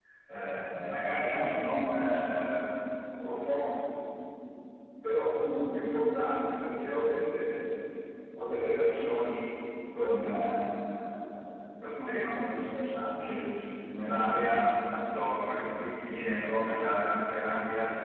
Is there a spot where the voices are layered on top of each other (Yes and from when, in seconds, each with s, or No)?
No